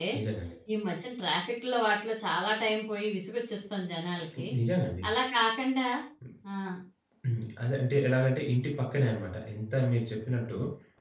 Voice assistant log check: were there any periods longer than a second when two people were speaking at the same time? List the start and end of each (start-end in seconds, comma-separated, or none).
none